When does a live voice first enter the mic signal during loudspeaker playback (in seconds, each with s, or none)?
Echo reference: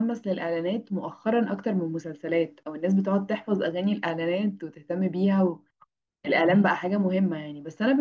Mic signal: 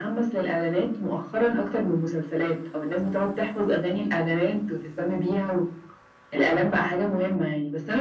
none